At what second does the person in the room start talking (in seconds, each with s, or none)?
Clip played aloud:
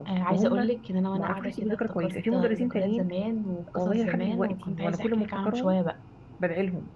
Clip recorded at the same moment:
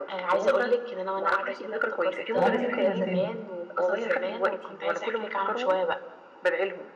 2.3 s